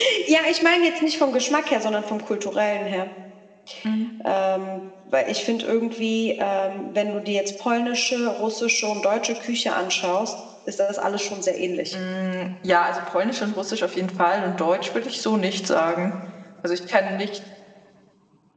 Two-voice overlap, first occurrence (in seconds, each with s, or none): none